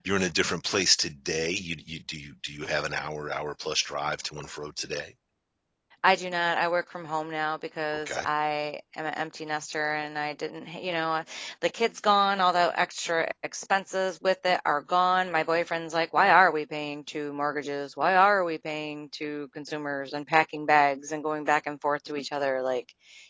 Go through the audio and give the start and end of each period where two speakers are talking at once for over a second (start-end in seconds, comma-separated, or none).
none